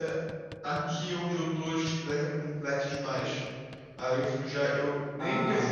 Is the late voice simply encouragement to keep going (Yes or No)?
Yes